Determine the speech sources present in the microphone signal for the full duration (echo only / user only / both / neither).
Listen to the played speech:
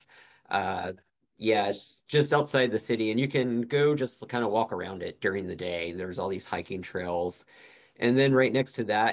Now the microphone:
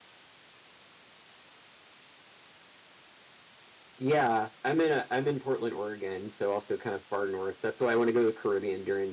user only